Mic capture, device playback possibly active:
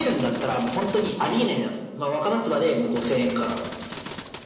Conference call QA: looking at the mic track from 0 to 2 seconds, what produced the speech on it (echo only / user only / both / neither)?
echo only